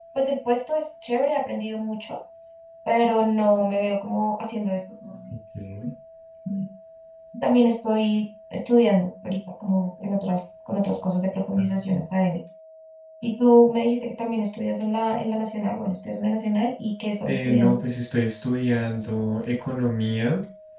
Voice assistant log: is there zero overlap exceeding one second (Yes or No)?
Yes